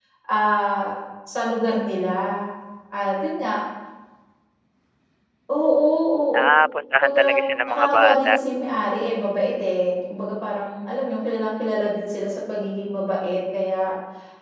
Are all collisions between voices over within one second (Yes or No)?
No